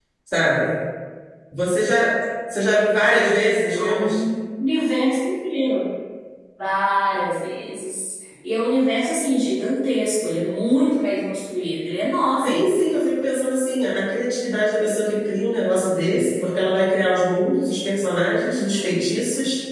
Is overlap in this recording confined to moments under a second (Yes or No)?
Yes